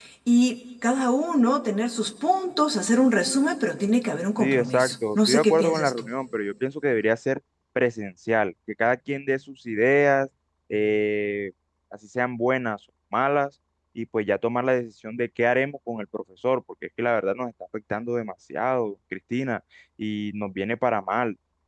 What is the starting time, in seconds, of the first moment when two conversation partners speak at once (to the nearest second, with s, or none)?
4 s